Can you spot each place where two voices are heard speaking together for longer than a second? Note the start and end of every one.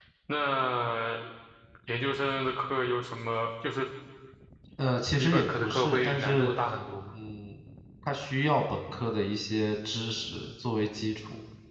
5.2-6.5

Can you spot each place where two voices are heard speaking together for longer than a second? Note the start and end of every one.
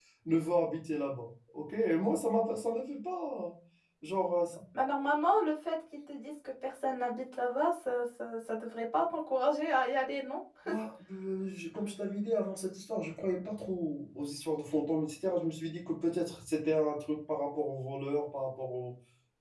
none

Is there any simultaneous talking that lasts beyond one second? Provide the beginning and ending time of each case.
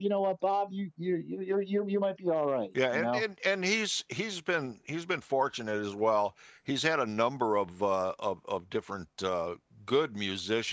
none

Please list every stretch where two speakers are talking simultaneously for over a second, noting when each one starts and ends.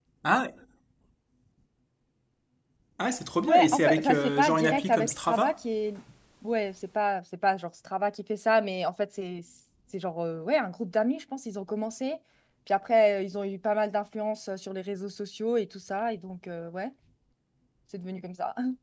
3.5-5.5

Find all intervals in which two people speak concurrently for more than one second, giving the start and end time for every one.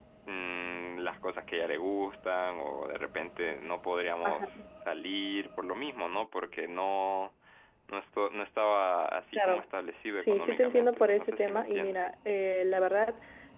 10.1-12.0

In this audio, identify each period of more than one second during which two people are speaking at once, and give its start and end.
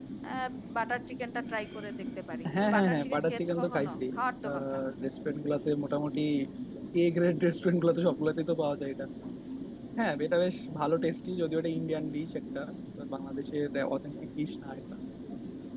2.6-4.0

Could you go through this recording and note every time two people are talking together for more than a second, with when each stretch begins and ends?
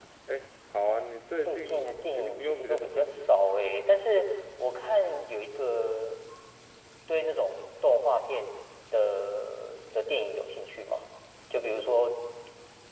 1.4-3.4

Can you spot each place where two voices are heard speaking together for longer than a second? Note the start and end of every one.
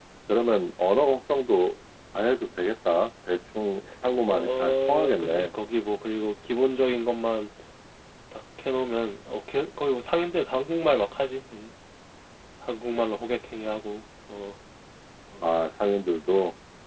4.3-5.5

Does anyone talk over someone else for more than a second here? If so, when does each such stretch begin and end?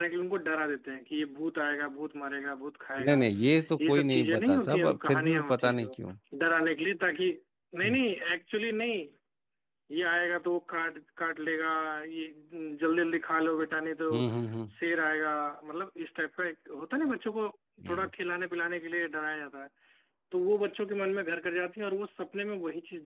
3.9-5.9

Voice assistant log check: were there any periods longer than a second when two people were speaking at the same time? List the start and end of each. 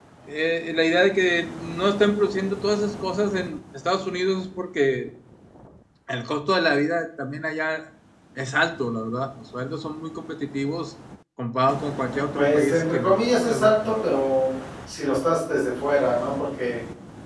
12.3-14.2

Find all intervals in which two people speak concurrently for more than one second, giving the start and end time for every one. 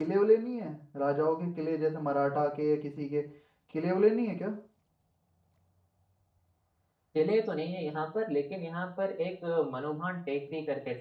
none

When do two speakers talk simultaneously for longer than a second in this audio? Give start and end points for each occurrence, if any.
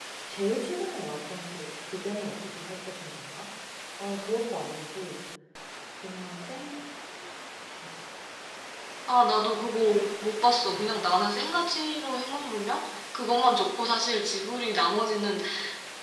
none

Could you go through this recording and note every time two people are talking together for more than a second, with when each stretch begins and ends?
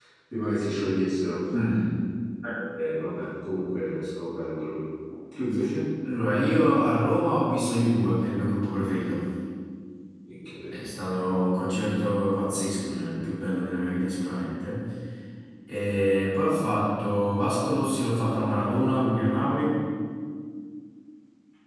none

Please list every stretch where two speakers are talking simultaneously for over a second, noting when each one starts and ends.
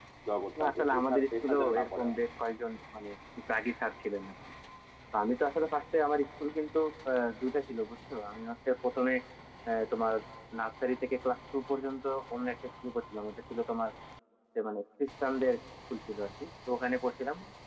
0.6-2.2

